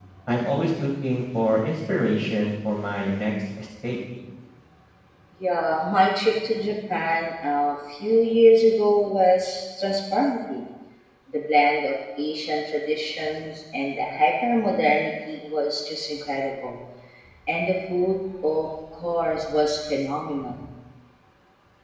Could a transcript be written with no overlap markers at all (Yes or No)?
Yes